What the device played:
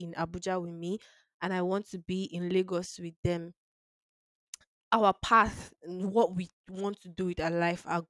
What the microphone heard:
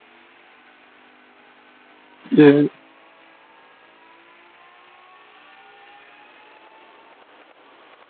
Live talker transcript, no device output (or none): Yeah,